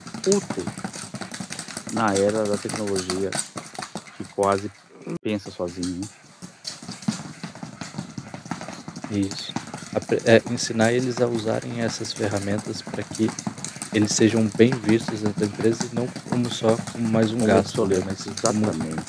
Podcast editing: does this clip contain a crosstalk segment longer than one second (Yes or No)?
Yes